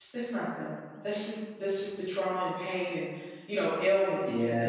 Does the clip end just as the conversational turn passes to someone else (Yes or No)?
Yes